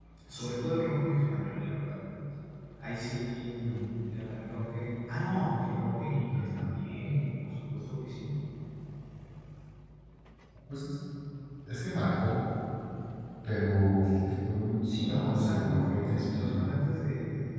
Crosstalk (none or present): present